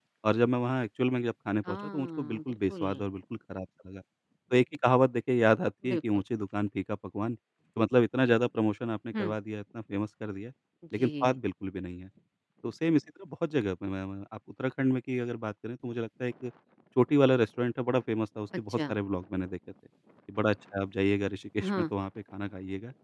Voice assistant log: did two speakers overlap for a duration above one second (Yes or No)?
Yes